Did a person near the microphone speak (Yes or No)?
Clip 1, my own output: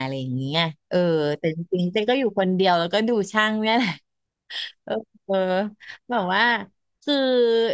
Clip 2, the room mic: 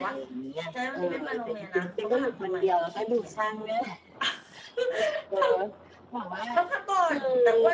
Yes